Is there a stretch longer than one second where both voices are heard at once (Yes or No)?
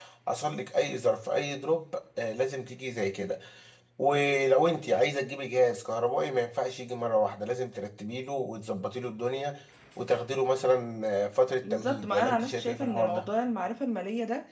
Yes